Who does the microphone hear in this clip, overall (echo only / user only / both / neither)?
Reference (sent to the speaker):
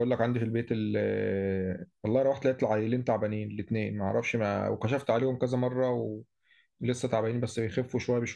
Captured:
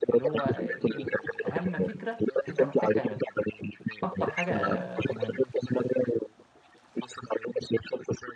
both